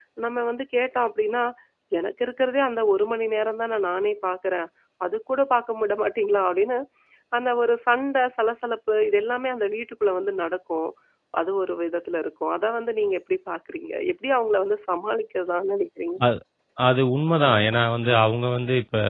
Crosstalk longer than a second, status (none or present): none